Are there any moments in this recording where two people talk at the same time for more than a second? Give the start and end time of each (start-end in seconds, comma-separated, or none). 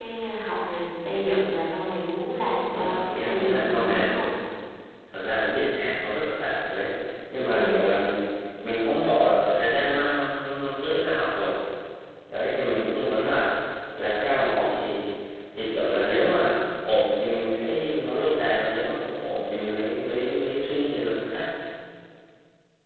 2.7-4.3